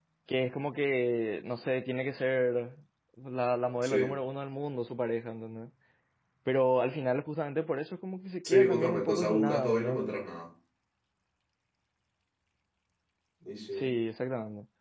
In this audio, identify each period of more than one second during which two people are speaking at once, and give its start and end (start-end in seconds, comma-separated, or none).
8.4-10.0